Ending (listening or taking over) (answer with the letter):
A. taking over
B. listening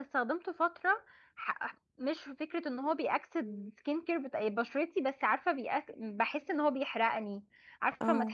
B